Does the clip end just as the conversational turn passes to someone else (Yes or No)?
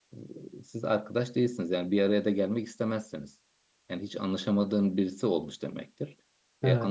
No